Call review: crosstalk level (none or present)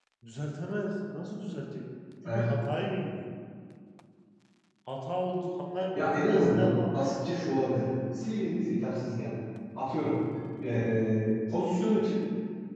present